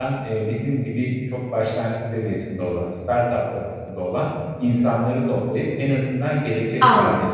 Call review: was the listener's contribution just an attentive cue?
Yes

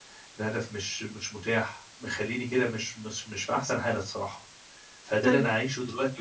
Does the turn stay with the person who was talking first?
Yes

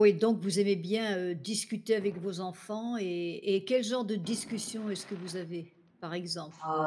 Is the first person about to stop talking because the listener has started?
Yes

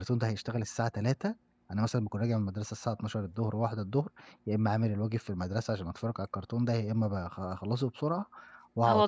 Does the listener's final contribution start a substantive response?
Yes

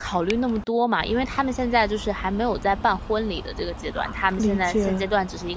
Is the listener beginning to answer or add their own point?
No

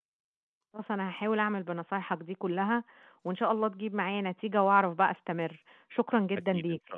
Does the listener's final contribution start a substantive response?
Yes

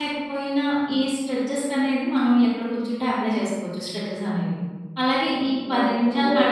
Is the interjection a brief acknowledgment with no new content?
Yes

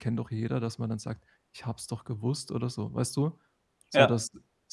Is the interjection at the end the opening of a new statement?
No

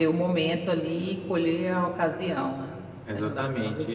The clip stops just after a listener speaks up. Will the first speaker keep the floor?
No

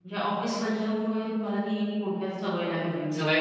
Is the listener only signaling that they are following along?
No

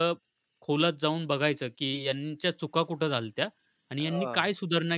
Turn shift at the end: No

